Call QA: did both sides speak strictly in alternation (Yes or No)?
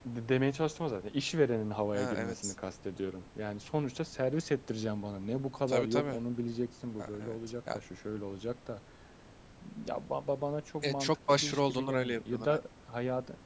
No